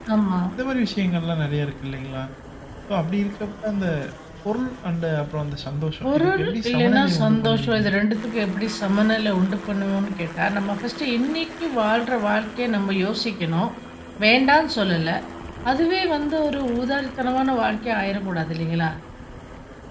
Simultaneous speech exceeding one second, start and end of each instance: 6.0-7.8

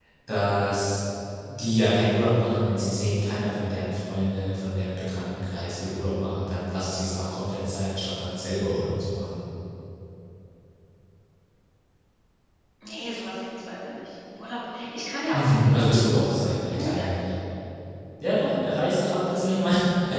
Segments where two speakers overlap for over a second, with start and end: 15.3-17.1

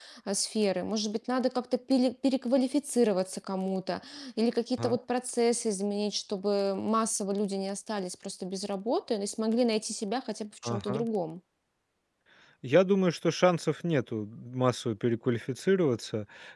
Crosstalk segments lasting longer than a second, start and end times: none

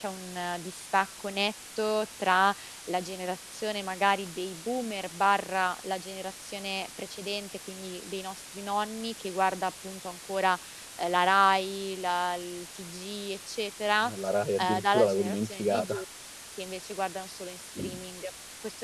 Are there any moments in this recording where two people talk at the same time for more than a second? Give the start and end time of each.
14.6-16.0

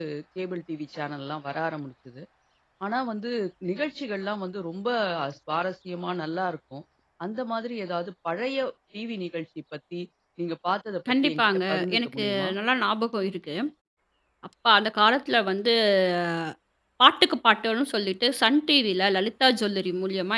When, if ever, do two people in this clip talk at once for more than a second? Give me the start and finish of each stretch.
11.2-12.5

